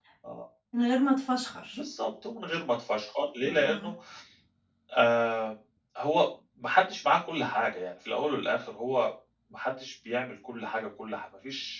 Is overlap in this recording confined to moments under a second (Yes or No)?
Yes